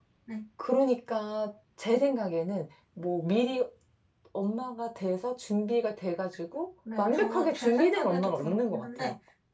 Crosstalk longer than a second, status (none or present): present